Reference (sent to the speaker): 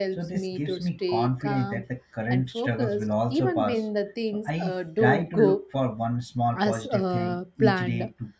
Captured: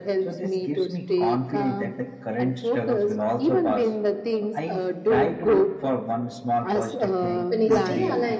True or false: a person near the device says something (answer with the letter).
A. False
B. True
B